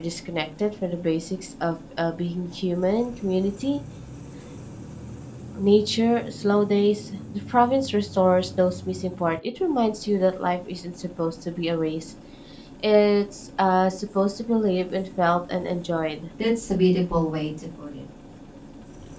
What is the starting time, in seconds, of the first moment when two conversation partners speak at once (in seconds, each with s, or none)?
none